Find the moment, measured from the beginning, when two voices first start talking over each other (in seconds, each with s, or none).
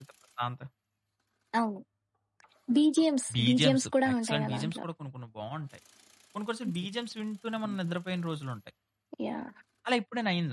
3.3 s